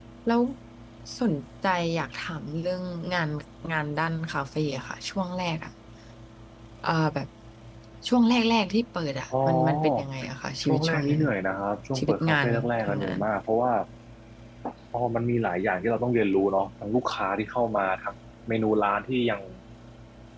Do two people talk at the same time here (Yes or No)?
Yes